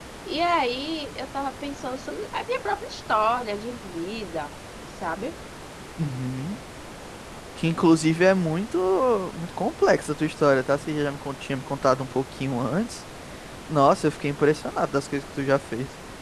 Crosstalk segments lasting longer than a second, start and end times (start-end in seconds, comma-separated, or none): none